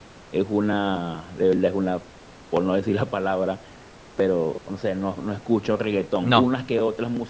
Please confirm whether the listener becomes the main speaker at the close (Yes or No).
No